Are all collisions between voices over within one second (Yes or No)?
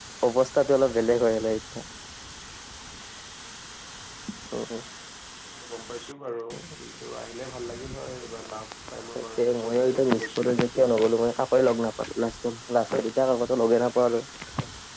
No